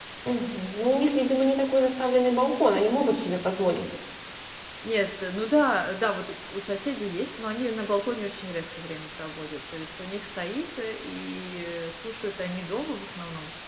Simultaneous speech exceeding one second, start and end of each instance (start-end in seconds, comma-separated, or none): none